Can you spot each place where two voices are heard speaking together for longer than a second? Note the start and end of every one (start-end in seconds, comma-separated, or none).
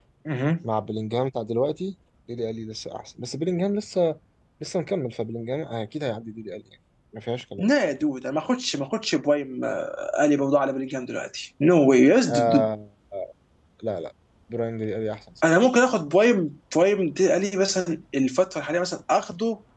none